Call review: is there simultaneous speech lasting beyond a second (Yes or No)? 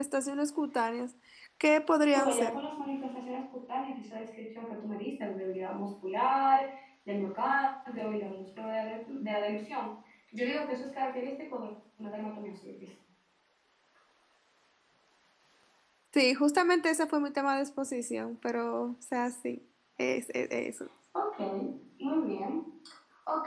No